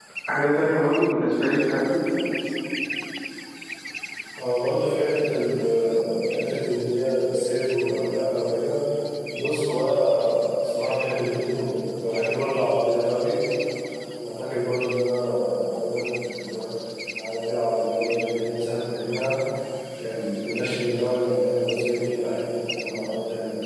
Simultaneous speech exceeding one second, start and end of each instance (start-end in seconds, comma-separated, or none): none